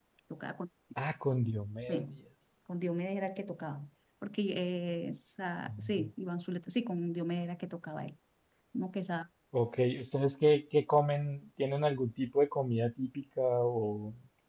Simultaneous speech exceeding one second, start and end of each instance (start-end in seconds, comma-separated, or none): none